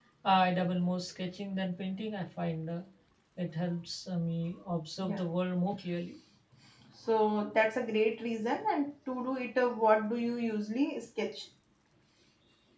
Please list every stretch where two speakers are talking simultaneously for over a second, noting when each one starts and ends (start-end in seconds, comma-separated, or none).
none